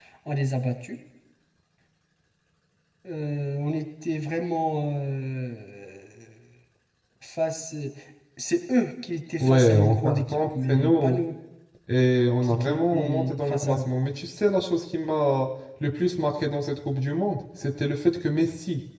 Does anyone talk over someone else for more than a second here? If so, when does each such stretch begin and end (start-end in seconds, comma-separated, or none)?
9.4-11.2, 12.4-13.9